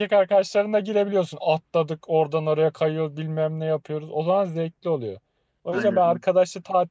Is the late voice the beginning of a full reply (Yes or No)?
No